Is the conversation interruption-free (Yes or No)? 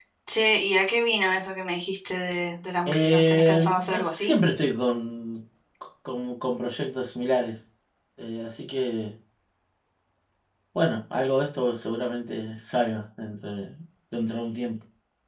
No